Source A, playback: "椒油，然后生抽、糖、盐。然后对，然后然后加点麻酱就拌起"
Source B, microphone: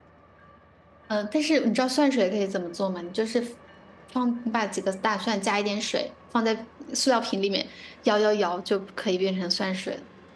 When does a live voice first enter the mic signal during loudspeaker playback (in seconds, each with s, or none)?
1.1 s